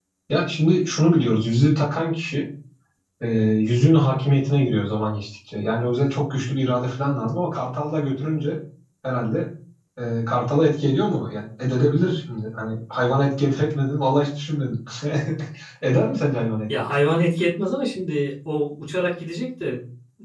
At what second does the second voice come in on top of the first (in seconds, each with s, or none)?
none